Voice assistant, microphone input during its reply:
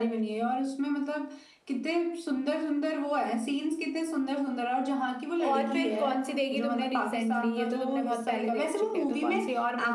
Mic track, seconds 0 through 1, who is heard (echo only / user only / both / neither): echo only